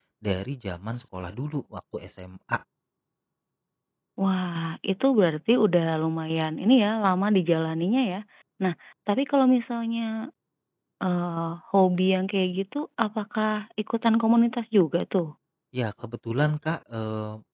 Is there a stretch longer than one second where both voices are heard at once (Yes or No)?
No